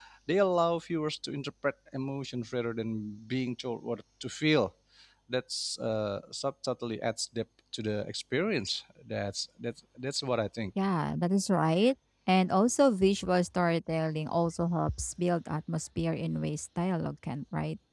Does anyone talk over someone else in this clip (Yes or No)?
No